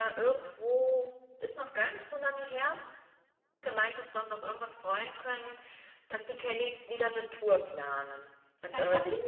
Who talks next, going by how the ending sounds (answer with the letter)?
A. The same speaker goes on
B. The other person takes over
B